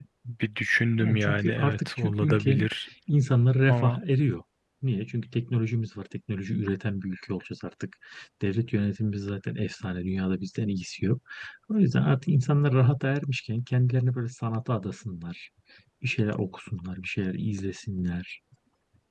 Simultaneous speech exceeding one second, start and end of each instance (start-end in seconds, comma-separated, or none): 1.0-2.7